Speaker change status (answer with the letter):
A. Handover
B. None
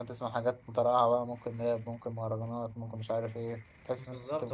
A